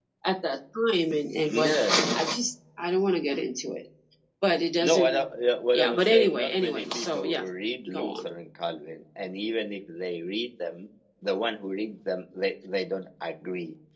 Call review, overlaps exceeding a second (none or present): present